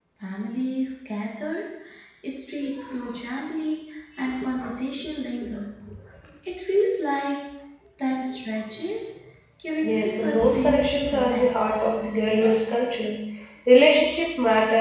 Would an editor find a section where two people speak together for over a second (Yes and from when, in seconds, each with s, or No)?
Yes, from 9.8 s